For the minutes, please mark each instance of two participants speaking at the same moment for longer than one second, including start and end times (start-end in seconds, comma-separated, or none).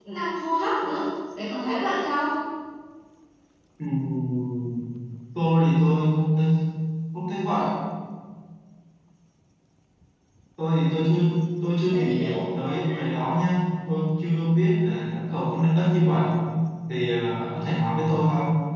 11.9-13.1